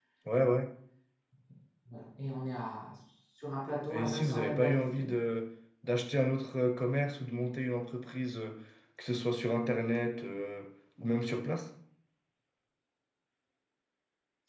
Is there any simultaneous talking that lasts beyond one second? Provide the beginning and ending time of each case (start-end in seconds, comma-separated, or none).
3.9-5.1